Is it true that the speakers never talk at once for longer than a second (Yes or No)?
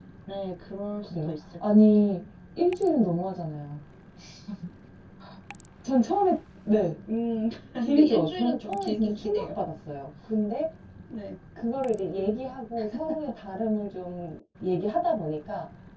No